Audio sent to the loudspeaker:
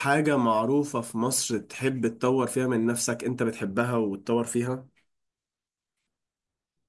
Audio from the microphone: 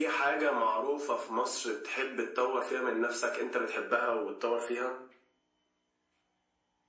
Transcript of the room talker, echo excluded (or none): none